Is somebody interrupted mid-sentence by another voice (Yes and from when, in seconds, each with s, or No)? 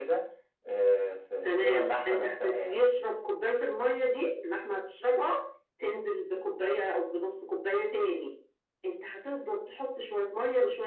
Yes, from 1.4 s